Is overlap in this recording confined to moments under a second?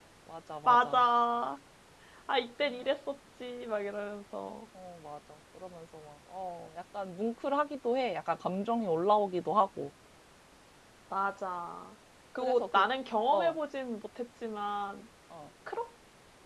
Yes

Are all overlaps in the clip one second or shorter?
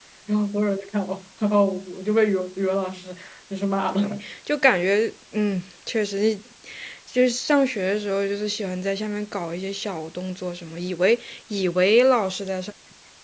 Yes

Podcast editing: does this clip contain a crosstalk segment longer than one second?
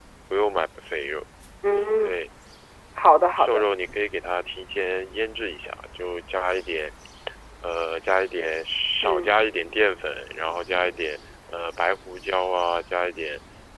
No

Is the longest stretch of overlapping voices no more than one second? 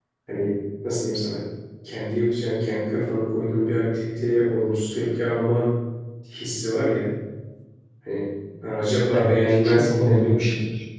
No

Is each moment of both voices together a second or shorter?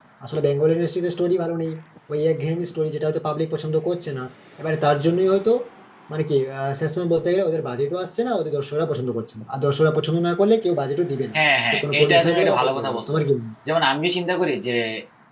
No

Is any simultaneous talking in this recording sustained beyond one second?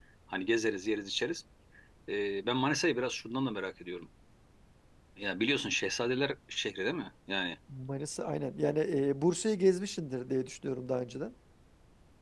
No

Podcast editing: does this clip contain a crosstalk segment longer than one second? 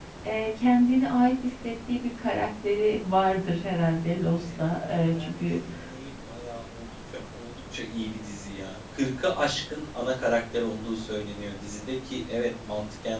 Yes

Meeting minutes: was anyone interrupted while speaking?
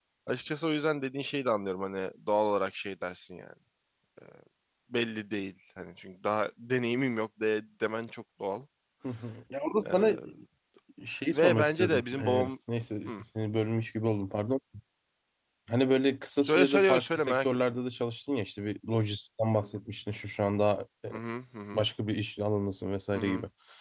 Yes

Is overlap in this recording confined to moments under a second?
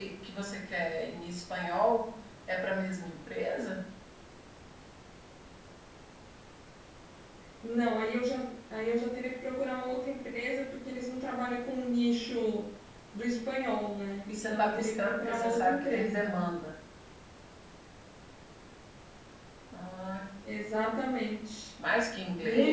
No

